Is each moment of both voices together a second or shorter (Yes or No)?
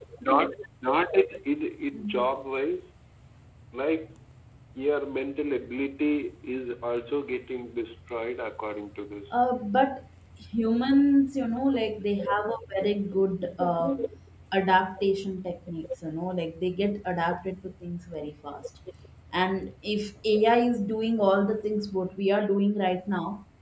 Yes